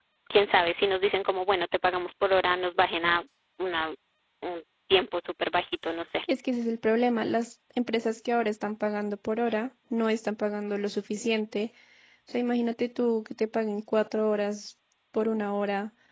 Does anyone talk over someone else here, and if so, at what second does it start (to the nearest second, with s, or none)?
none